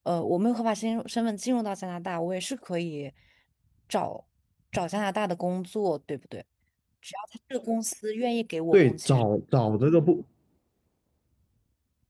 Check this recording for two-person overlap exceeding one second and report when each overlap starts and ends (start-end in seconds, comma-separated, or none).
none